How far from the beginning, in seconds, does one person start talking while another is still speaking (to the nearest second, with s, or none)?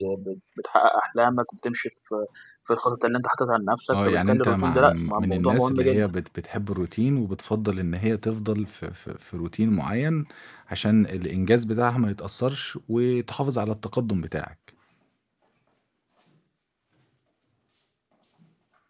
4 s